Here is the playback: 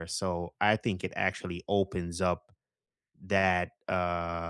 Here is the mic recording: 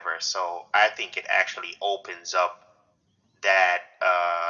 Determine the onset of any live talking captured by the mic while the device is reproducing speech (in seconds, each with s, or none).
none